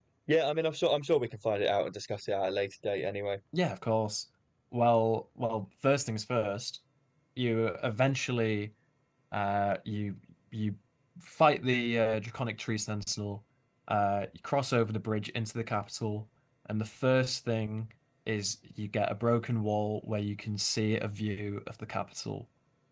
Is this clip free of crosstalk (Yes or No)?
Yes